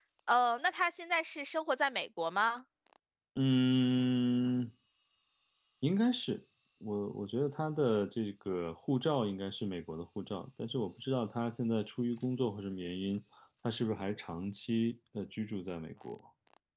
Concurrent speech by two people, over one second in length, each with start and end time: none

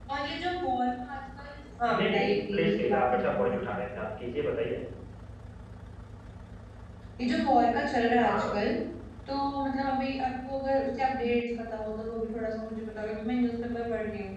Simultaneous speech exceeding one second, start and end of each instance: 1.9-3.9

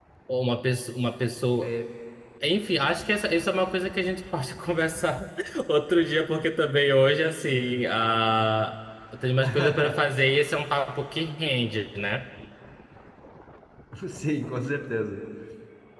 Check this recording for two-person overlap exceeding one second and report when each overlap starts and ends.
none

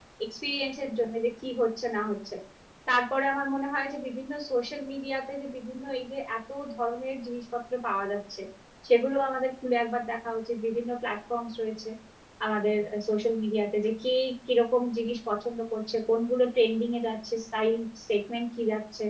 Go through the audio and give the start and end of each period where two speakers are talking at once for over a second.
none

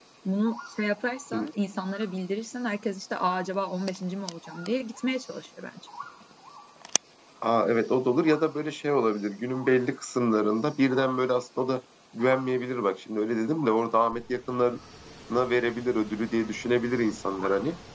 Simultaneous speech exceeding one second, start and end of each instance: none

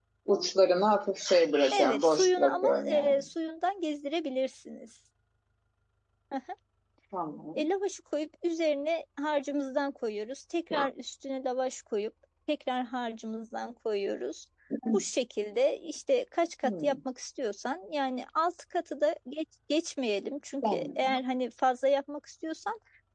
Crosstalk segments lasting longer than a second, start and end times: 1.7-3.2

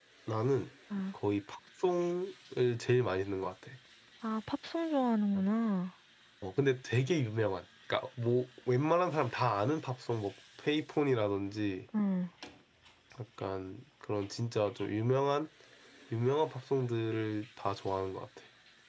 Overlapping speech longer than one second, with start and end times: none

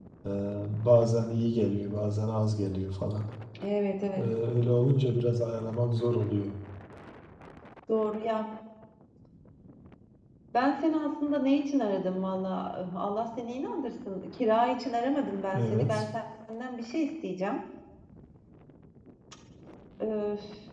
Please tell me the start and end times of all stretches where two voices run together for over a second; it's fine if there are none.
none

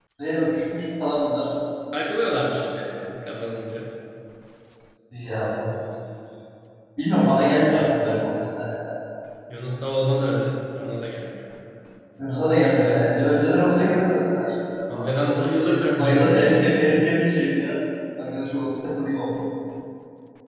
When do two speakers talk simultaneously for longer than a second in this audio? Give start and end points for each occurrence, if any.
14.9-16.9

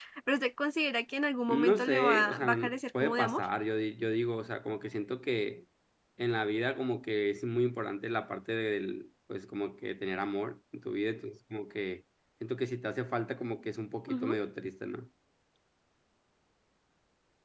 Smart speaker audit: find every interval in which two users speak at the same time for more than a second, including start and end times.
1.5-3.4

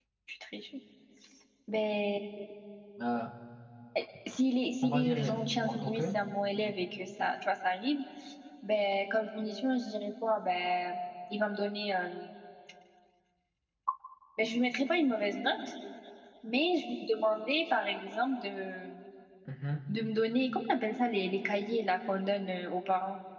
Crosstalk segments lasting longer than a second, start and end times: 4.8-6.0

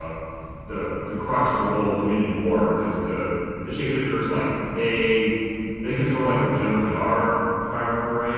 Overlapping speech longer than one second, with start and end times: none

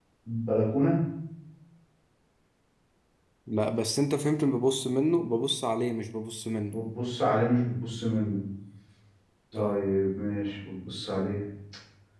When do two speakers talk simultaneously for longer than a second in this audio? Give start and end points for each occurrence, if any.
none

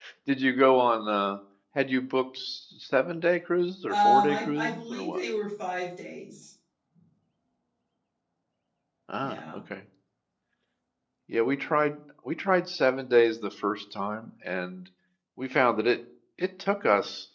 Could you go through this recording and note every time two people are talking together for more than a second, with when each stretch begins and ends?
3.9-5.2

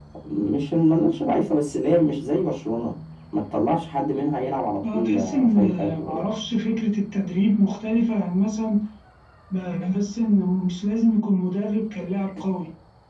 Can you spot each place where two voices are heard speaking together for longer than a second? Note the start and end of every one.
4.8-6.3

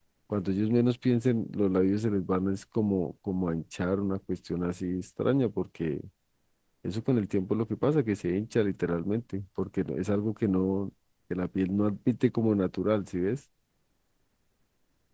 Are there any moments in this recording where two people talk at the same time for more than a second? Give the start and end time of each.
none

